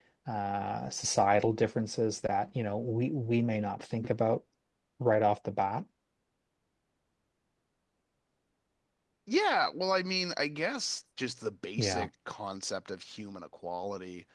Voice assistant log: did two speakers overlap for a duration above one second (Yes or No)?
No